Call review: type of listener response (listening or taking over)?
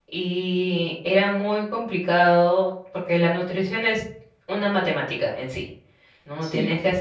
listening